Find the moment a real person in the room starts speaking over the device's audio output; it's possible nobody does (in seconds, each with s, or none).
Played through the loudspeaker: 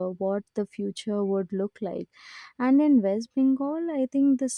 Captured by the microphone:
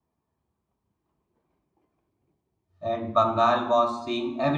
2.8 s